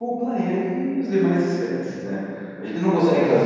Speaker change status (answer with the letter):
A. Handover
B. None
B